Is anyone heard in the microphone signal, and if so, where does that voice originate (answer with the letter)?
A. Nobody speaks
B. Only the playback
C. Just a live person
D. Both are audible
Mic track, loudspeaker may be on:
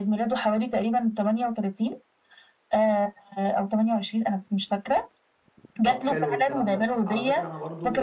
D